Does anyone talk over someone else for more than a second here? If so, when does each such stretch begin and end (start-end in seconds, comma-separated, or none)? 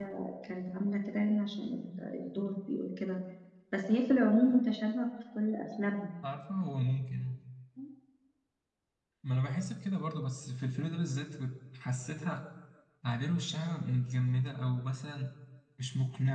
none